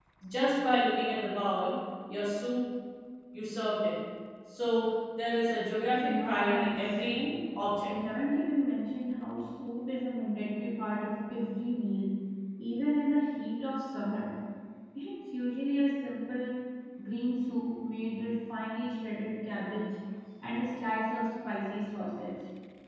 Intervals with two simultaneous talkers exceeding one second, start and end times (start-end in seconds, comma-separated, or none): 6.0-7.2